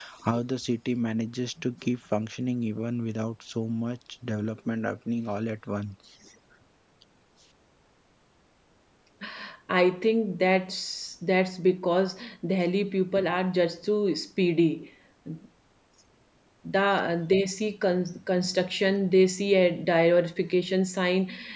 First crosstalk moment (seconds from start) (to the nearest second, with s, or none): none